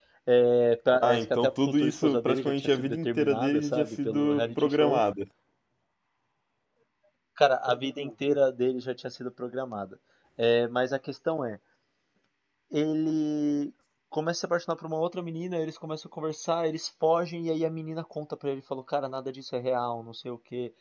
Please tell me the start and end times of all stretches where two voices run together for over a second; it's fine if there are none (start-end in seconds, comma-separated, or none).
1.0-5.0